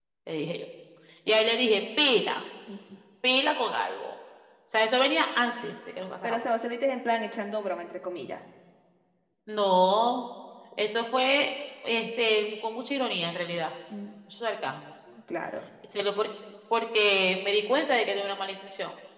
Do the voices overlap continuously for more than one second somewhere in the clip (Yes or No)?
No